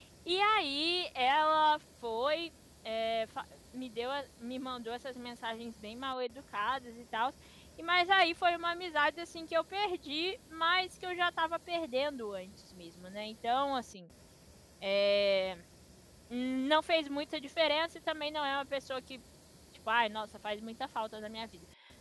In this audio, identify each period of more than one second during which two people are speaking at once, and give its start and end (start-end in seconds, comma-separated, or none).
none